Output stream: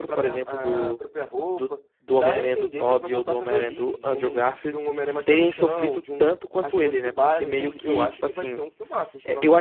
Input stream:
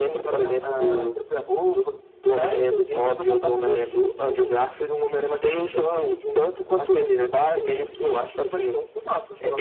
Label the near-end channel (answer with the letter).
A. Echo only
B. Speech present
A